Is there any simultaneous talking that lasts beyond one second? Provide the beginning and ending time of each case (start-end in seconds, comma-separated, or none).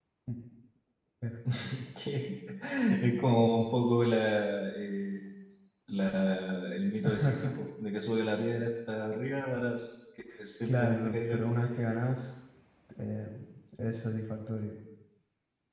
10.7-11.9